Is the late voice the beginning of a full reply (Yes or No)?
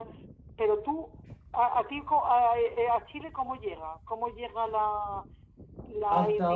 Yes